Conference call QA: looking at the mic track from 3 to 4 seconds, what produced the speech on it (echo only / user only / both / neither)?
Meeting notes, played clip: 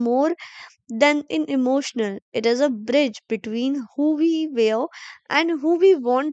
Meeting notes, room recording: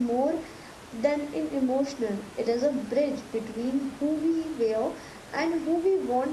echo only